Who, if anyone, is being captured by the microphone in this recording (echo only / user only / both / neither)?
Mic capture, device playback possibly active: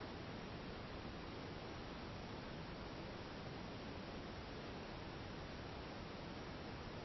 neither